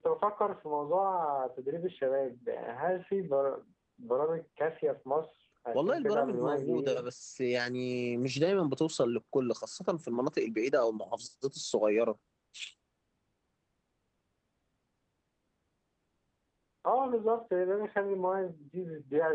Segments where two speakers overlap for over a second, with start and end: 5.7-7.0

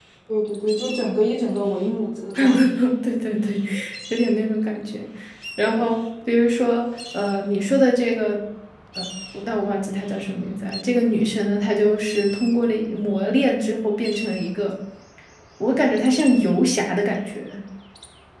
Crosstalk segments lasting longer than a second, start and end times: none

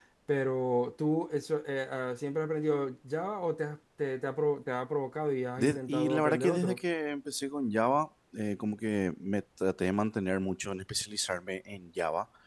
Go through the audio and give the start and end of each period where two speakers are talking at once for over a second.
5.6-6.8

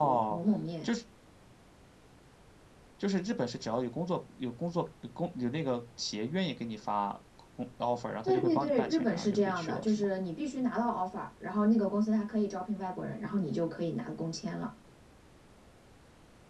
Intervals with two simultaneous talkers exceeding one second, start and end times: 8.2-10.1

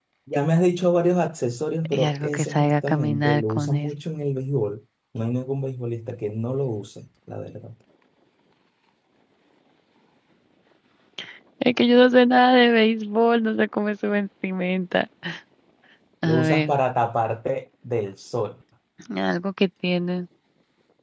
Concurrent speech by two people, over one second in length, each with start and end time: 1.9-3.9

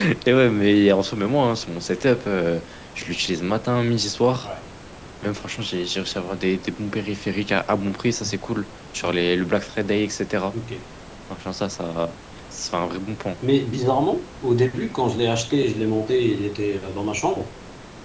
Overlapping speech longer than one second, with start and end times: none

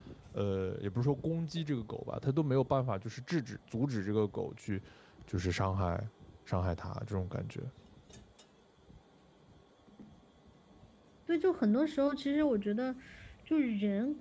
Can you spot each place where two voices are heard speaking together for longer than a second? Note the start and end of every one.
none

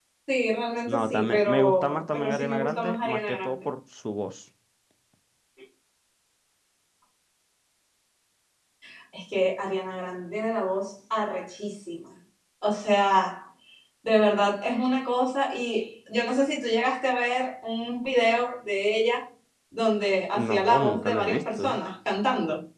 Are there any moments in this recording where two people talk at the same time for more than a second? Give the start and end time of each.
0.9-3.5, 20.3-21.7

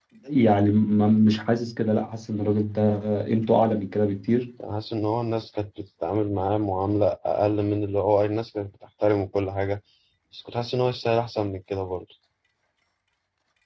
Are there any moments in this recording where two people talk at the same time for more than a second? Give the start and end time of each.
none

